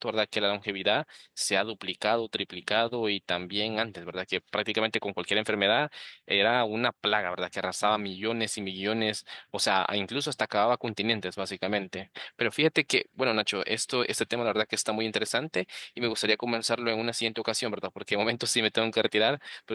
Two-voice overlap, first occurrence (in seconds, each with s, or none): none